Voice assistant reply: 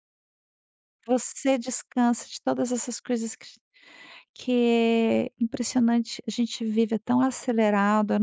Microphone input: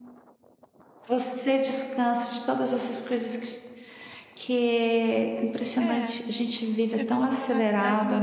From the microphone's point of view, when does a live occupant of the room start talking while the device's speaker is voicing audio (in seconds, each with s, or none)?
5.3 s